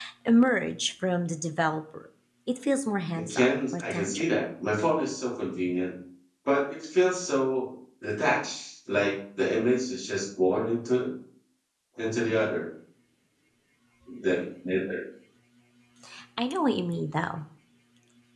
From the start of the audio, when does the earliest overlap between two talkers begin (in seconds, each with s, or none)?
3.1 s